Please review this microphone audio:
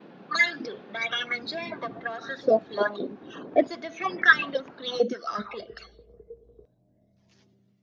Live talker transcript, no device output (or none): none